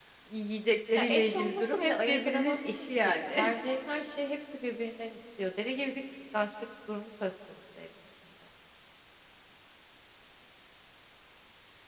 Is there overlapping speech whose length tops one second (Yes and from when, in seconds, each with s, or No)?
Yes, from 0.9 s